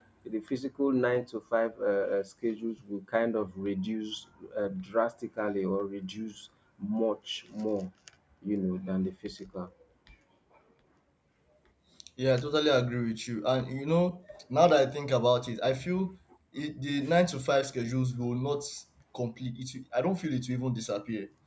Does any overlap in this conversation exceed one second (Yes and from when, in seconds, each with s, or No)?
No